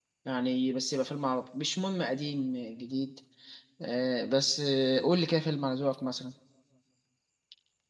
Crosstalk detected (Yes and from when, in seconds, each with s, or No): No